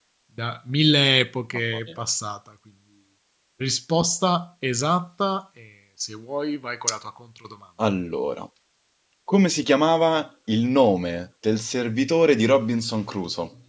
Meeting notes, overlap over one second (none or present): none